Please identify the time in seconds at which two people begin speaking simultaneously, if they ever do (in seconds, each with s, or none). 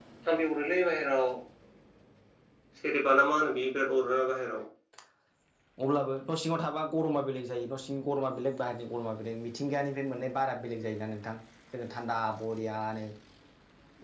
none